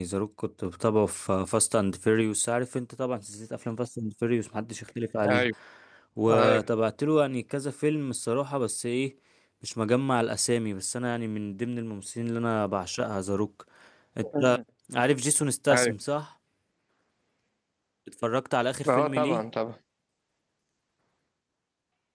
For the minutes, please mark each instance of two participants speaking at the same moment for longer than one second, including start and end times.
none

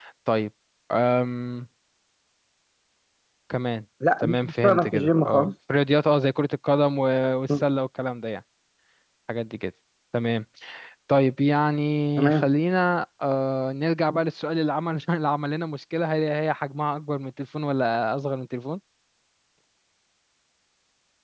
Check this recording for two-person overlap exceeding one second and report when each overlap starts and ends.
4.2-5.5

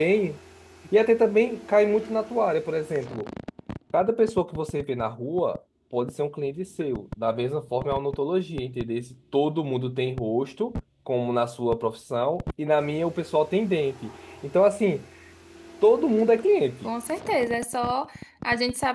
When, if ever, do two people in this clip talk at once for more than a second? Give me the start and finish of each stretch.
none

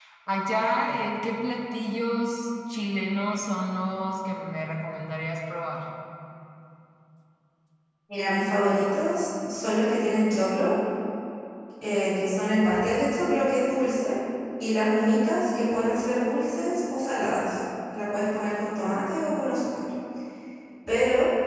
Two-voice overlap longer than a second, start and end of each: none

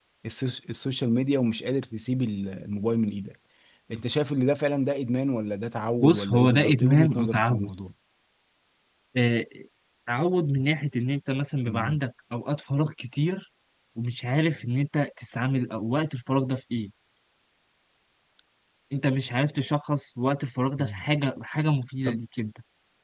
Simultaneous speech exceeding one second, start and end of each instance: 6.0-7.7

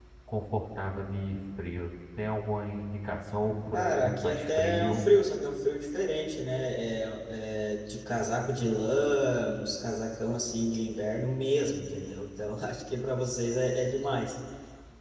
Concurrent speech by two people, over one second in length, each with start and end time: 3.7-5.0

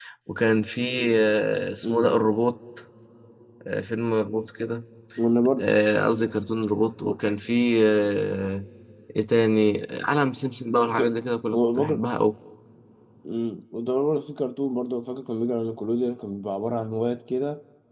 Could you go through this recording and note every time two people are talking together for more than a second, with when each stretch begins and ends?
none

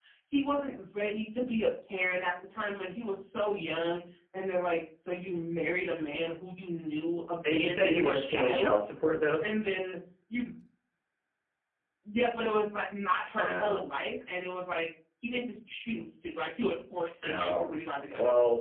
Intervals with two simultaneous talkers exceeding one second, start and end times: 7.5-8.7

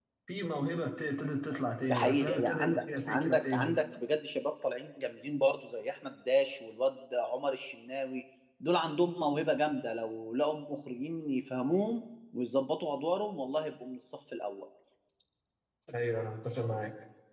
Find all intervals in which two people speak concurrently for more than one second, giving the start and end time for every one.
1.9-3.8

